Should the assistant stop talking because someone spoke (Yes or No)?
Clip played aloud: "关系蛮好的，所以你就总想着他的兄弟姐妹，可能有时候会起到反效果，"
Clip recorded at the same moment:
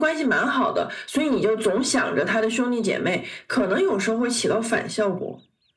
No